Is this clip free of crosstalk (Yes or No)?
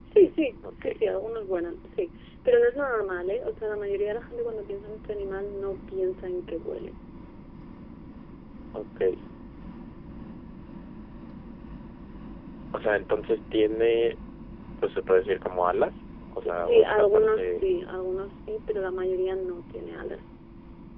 No